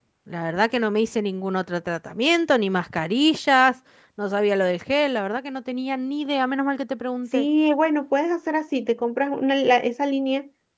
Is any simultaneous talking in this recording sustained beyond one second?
No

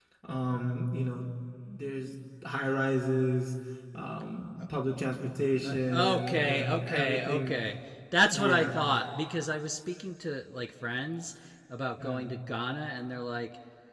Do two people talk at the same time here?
Yes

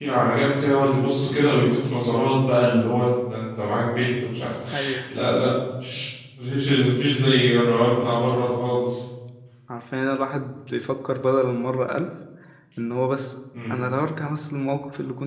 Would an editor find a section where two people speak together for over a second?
No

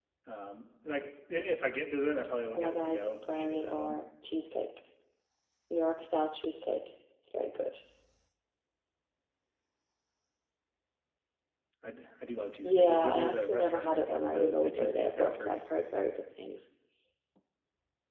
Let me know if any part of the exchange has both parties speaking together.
Yes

